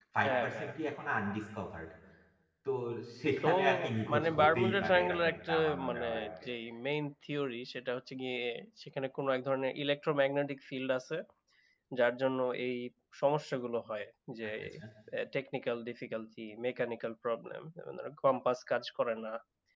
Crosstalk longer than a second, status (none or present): present